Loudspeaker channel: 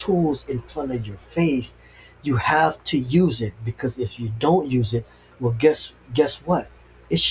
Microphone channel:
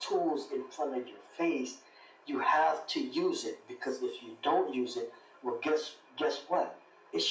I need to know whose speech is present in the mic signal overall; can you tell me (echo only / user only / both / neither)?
echo only